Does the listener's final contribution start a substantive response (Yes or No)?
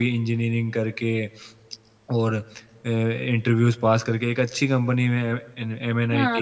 Yes